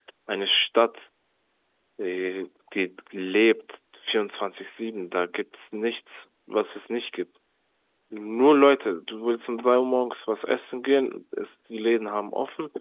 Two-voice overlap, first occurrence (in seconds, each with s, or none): none